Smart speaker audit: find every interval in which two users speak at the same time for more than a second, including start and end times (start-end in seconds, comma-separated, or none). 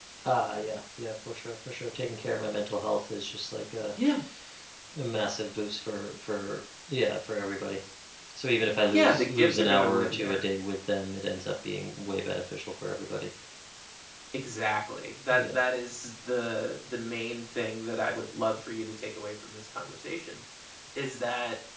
8.9-10.4